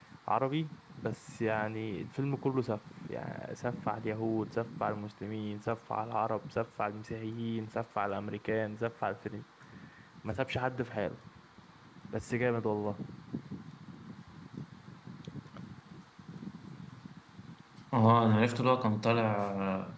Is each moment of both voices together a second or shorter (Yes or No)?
Yes